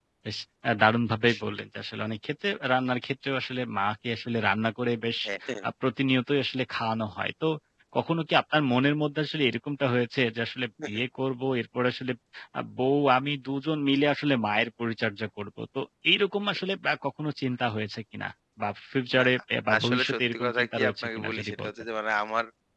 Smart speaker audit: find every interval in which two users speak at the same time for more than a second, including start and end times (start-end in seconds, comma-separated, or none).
19.8-21.7